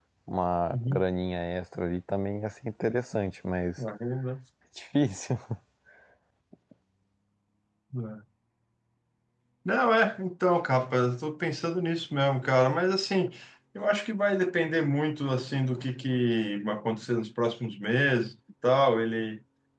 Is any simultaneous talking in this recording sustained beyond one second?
No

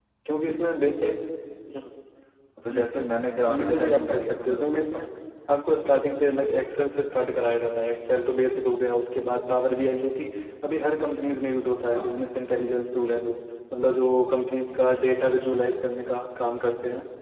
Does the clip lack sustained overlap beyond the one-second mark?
No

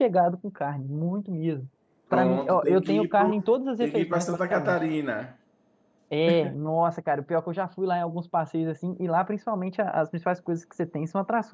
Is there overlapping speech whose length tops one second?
Yes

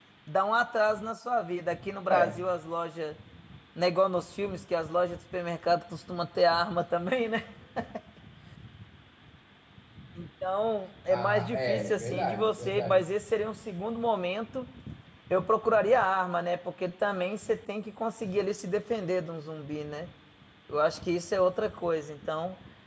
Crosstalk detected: Yes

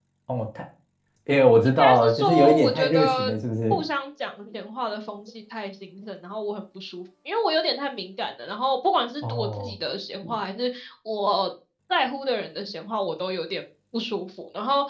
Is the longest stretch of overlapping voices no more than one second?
No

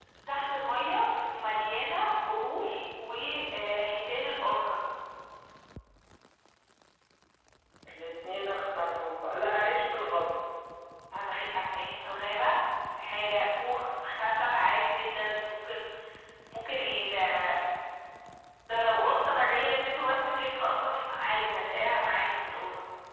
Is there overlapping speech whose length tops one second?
No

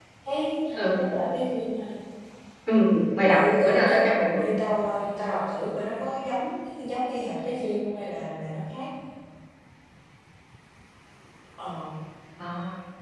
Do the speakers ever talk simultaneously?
Yes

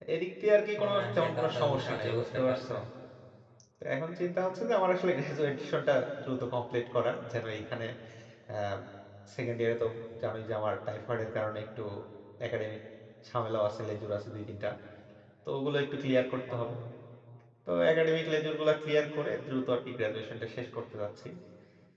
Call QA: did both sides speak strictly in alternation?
No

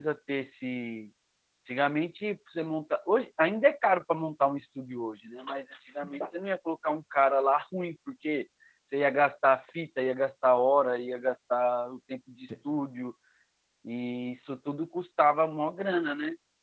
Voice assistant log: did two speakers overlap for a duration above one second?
No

